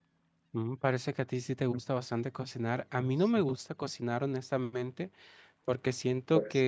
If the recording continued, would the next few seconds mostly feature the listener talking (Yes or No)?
No